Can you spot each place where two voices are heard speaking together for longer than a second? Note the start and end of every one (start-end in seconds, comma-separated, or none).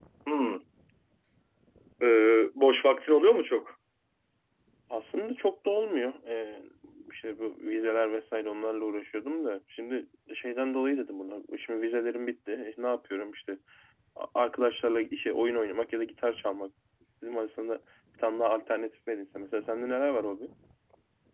none